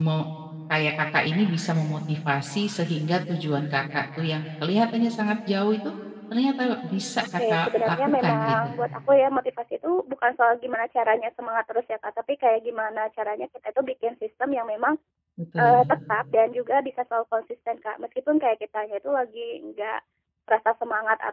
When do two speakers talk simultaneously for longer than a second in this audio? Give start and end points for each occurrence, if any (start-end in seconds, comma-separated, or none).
7.5-8.7